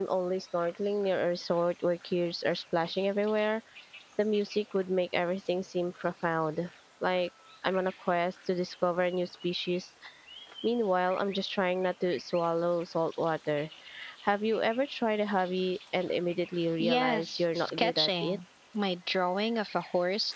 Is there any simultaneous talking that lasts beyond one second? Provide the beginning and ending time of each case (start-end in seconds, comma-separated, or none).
16.8-18.4